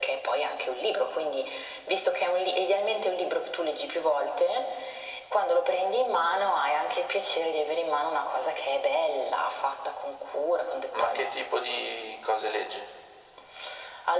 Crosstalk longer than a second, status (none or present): none